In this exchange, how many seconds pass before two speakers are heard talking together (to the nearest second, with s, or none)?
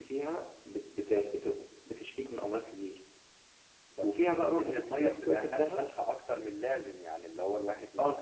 4 s